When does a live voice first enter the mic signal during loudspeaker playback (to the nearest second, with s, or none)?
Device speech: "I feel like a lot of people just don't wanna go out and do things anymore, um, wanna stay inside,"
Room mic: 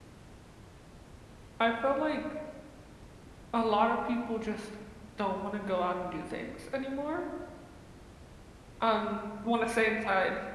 none